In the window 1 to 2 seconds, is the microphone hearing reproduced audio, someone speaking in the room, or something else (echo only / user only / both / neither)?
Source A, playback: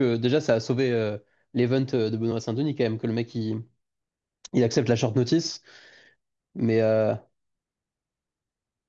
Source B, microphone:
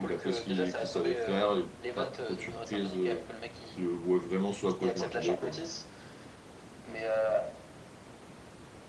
both